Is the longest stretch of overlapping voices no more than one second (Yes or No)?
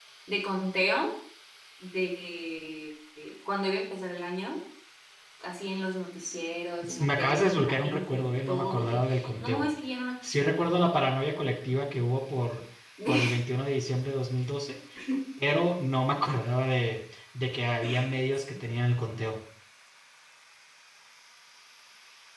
No